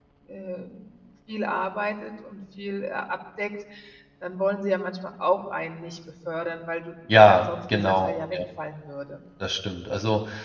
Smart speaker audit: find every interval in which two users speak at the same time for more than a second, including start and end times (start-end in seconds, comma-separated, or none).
7.1-8.4